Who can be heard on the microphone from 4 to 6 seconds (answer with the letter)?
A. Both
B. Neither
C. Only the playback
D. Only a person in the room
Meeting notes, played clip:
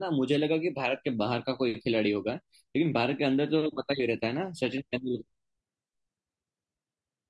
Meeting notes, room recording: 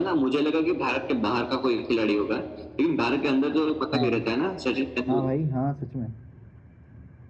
A